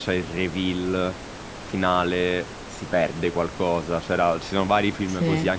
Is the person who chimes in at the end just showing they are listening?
Yes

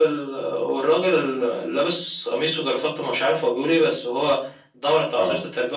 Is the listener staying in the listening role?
Yes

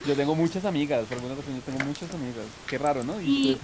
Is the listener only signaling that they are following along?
No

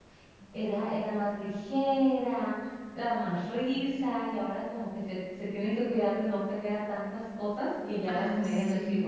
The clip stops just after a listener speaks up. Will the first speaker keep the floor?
No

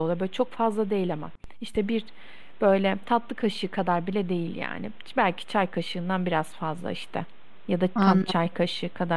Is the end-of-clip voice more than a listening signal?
No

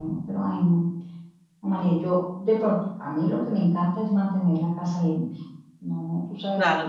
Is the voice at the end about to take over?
Yes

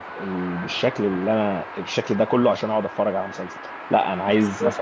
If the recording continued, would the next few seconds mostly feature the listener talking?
No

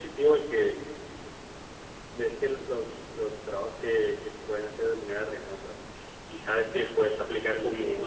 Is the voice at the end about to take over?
No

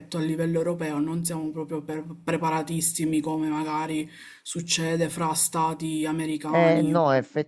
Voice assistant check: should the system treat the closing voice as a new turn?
Yes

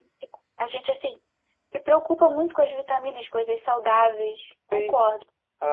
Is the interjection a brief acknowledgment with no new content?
No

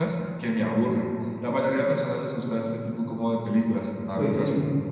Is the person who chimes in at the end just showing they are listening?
No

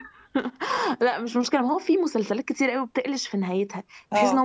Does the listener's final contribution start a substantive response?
No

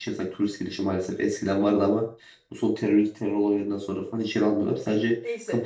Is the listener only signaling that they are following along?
No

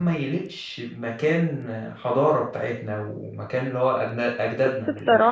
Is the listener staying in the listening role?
No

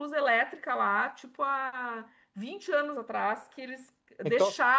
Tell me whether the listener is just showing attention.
Yes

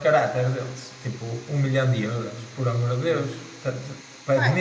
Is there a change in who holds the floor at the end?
Yes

